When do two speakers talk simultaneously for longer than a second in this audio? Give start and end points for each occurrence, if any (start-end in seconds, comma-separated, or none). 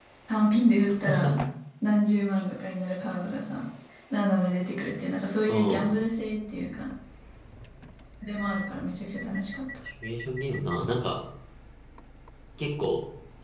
none